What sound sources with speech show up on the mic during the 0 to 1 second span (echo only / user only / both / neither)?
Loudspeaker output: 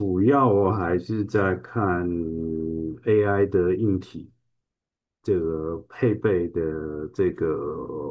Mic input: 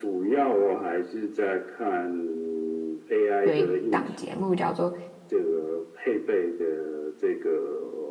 echo only